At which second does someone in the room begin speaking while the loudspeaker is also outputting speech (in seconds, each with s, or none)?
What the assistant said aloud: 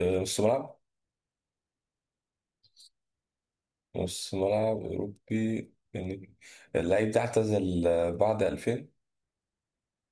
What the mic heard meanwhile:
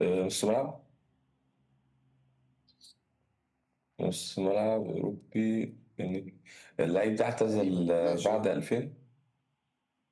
7.4 s